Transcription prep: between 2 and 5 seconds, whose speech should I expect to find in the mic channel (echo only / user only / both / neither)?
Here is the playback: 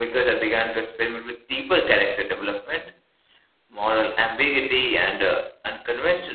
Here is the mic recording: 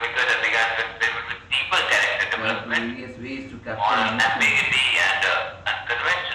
both